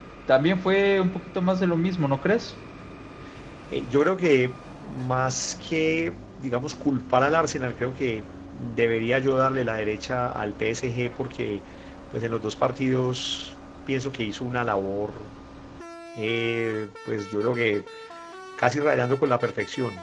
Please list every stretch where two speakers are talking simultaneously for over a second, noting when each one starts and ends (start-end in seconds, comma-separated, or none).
none